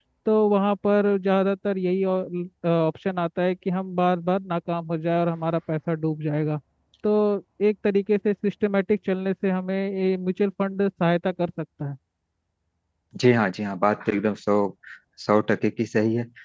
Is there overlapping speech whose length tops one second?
No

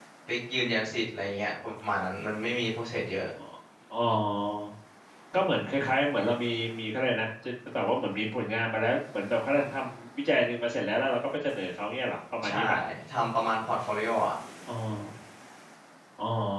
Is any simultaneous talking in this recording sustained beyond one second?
No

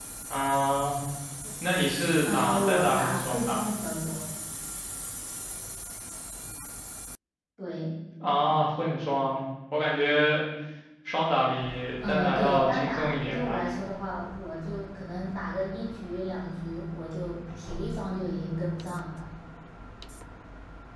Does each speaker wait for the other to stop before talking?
No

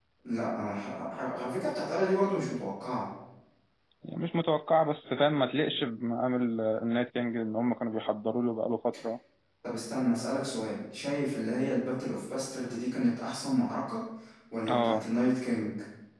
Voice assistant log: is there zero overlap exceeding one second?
Yes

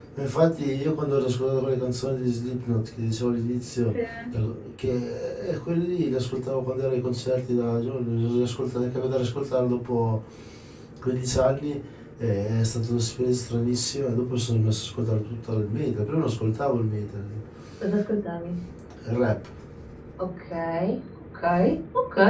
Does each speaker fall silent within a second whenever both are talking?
Yes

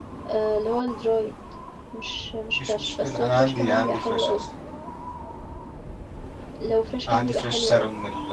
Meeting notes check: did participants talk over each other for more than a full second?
Yes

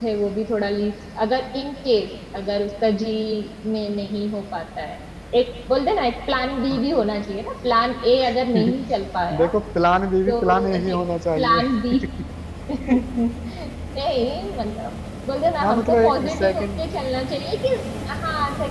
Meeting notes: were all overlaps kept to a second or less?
No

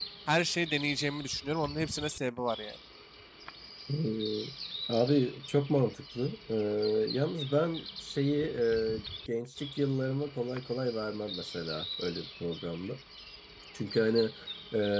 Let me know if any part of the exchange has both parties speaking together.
No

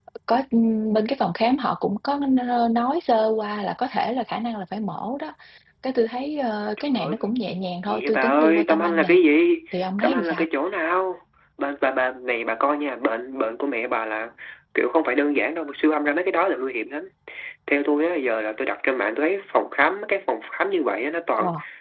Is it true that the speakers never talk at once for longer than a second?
No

